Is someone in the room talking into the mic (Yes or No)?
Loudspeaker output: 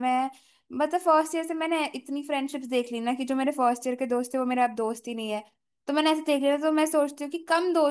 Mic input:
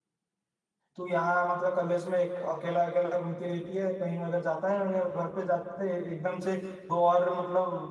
Yes